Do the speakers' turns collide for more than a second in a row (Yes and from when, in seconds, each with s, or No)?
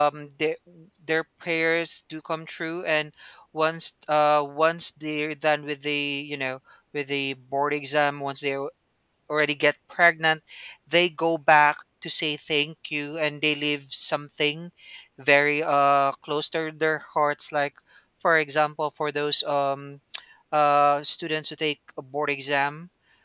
No